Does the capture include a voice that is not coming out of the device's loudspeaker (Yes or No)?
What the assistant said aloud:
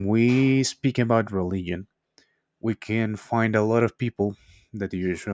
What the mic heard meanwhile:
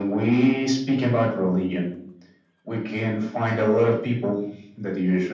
No